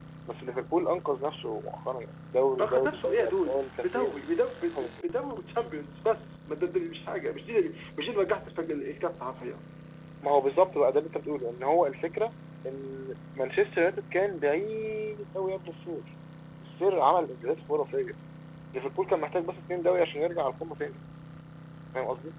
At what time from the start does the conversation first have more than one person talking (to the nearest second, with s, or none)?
3 s